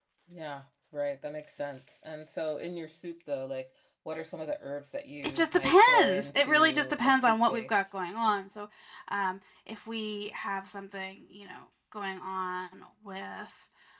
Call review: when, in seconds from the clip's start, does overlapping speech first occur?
5.2 s

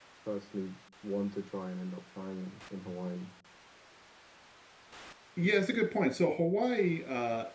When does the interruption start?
none

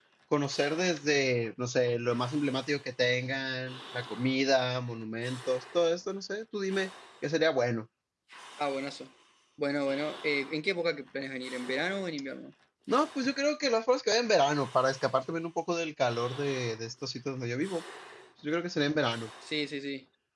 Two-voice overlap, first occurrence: none

